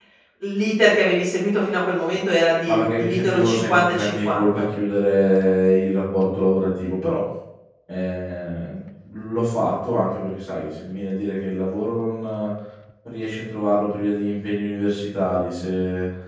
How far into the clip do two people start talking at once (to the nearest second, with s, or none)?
3 s